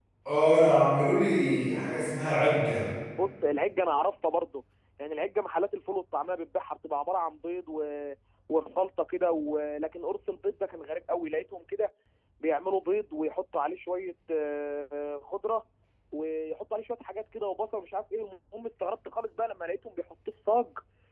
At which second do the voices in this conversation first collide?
none

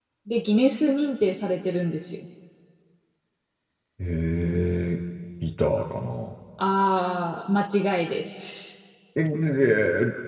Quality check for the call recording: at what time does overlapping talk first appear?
none

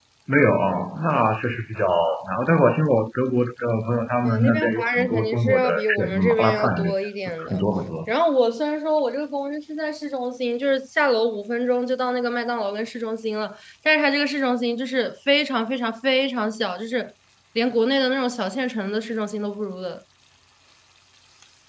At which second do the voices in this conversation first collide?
4.2 s

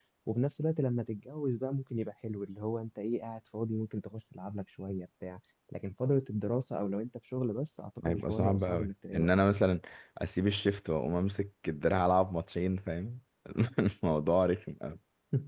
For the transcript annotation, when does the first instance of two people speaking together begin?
8.0 s

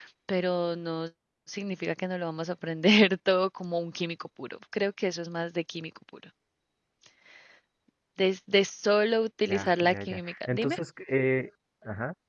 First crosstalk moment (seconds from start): 9.5 s

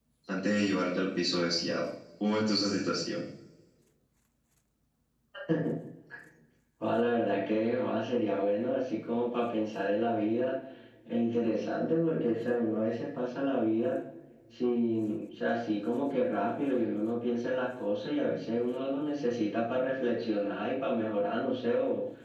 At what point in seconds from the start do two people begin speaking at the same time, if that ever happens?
none

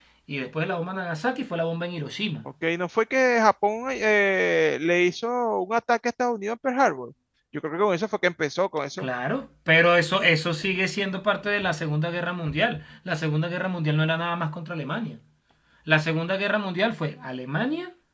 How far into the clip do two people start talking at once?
none

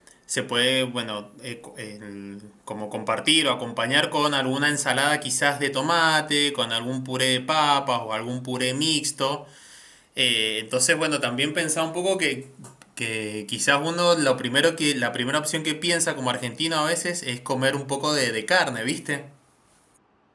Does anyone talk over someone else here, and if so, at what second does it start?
none

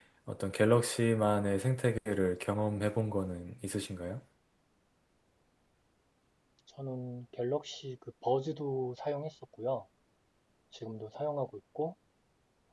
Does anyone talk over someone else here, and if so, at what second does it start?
none

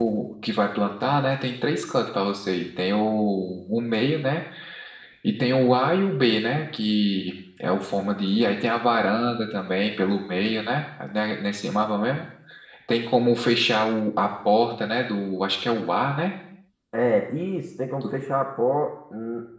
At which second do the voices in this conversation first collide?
none

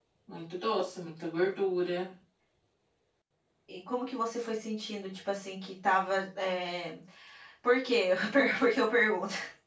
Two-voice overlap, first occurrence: none

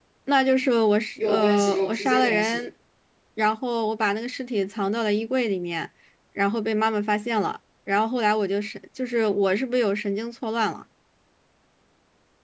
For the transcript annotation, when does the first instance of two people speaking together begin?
1.2 s

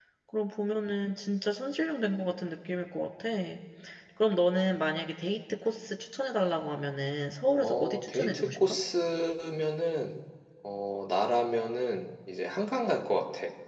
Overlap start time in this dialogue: 7.6 s

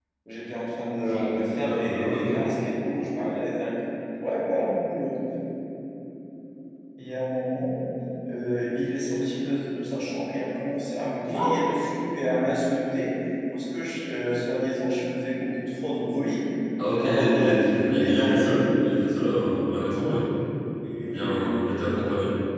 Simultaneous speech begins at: 1.0 s

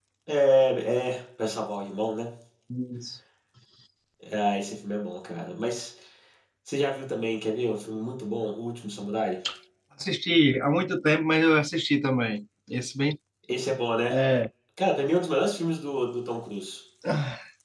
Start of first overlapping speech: none

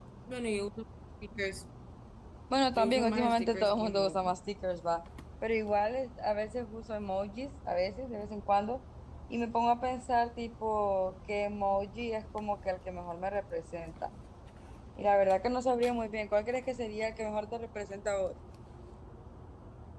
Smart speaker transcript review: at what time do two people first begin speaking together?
2.8 s

